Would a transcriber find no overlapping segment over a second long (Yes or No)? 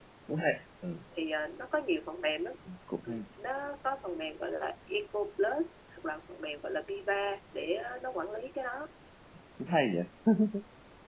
Yes